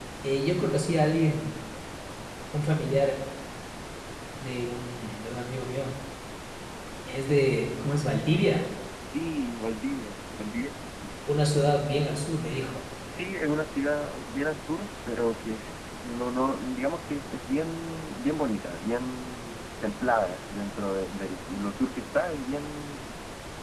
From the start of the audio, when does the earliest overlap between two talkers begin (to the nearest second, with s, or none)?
none